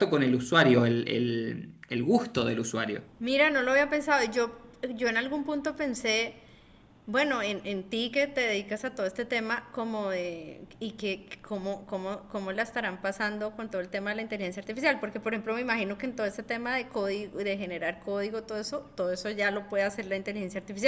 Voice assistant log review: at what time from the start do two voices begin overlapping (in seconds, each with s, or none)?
none